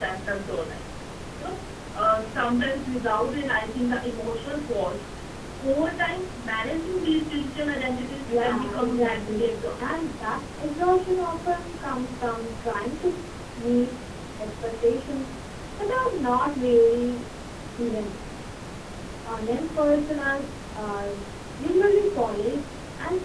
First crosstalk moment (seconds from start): 8.3 s

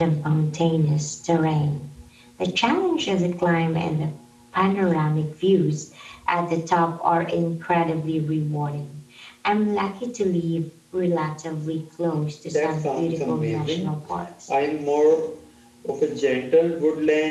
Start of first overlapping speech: 12.5 s

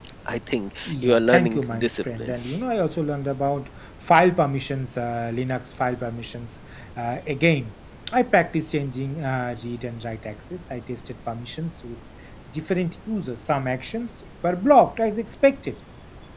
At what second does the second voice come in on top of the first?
0.8 s

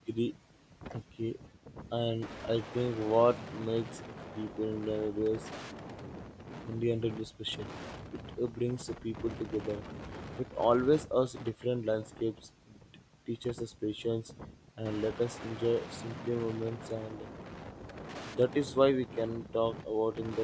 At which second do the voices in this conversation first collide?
none

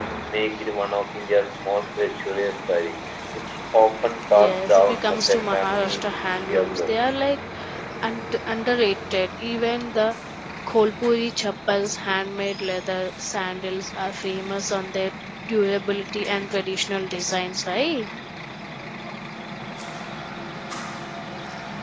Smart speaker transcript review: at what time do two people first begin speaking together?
4.3 s

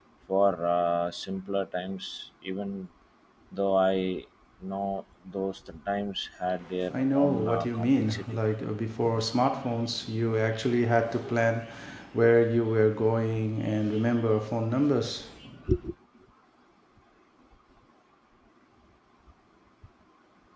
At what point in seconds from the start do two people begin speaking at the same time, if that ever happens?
6.9 s

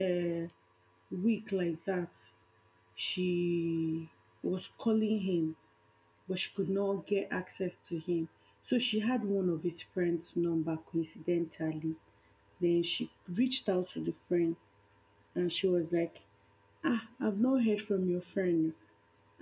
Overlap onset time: none

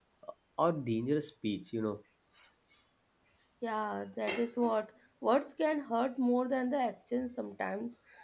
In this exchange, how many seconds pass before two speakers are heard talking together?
none

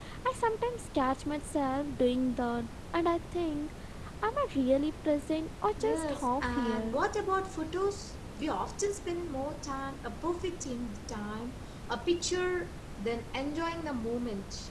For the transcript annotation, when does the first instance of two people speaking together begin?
5.8 s

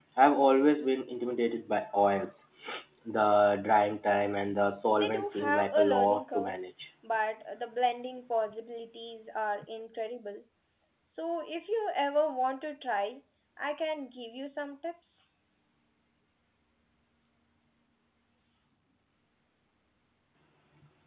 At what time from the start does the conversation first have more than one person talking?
4.9 s

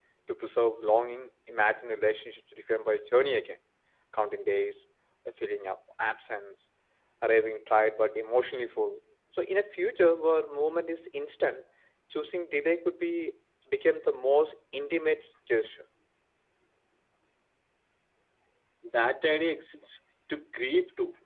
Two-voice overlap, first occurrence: none

